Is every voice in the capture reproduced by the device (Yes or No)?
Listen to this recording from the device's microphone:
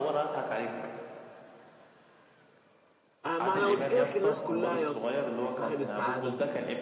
No